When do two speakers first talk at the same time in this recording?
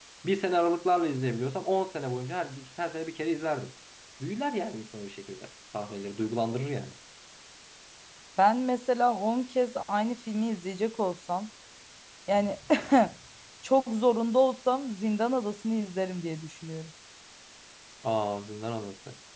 none

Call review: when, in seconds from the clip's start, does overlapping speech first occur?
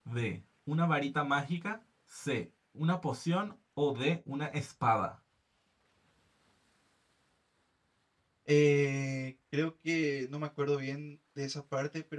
none

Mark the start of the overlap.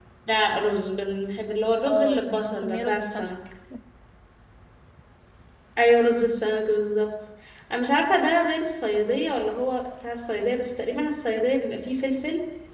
1.9 s

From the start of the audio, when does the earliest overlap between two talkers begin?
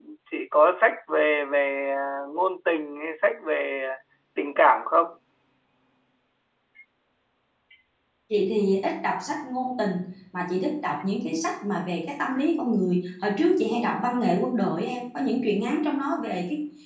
none

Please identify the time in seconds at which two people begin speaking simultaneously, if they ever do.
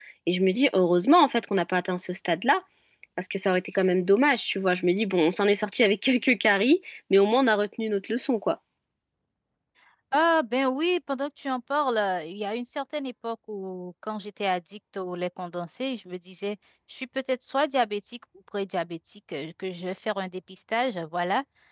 none

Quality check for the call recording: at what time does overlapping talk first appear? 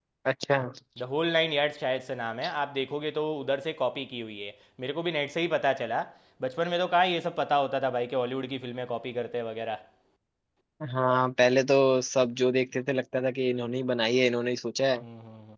none

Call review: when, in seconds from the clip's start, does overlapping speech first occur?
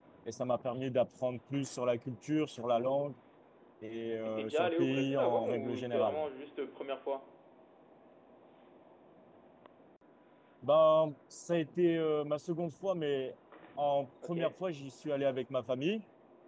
4.2 s

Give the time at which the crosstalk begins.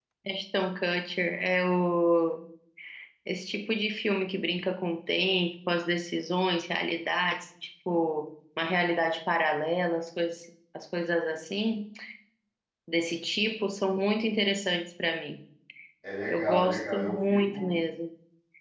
16.3 s

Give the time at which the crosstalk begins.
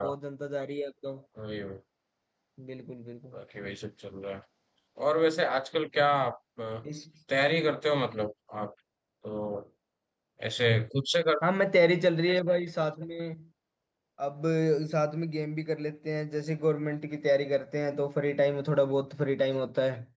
none

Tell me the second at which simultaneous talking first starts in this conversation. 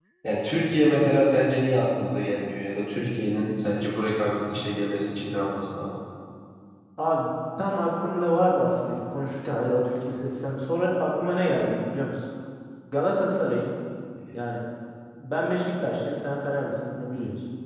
none

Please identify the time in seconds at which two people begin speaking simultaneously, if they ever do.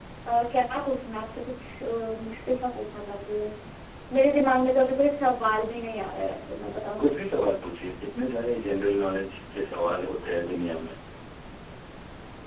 none

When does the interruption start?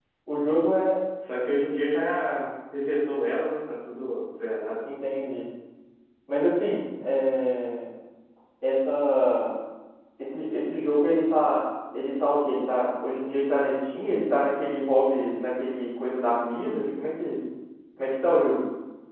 none

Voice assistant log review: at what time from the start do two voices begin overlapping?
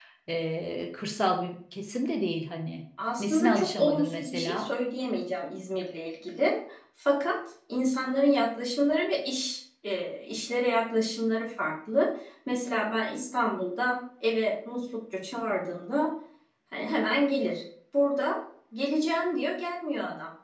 3.0 s

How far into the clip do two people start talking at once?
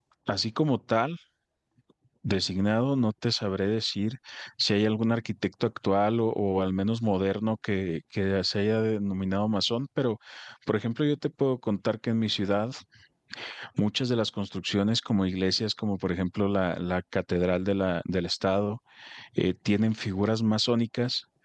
none

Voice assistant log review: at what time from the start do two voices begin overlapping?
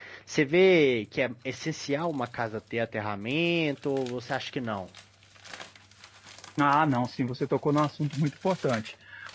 none

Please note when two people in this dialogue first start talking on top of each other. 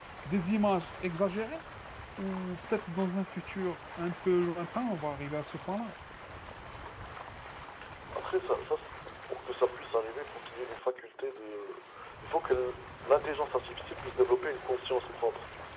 none

